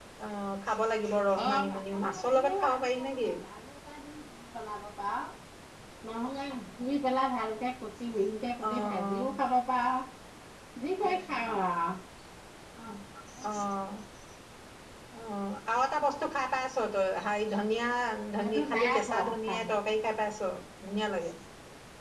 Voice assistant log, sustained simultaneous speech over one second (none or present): present